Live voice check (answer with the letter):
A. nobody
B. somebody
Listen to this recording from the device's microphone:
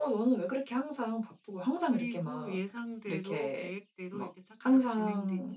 B